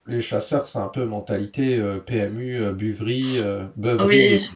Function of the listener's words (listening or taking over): taking over